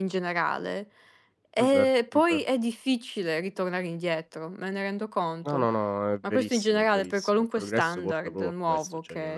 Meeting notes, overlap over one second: present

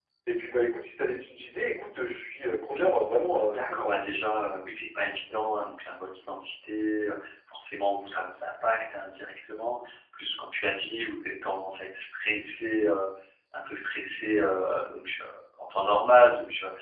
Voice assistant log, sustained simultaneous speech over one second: none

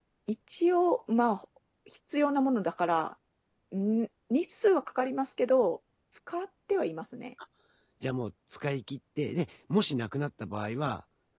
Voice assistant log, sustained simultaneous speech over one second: none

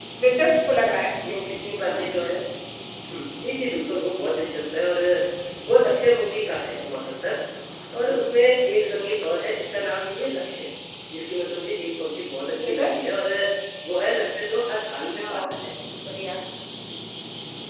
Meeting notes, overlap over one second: none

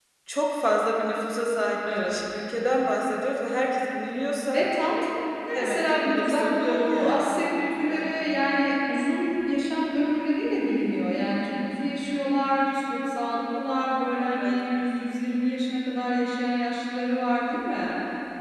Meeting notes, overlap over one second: present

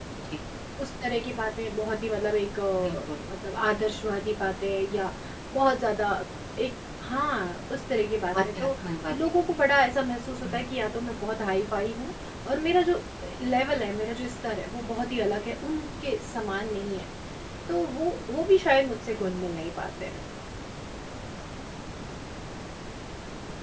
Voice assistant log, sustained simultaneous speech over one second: none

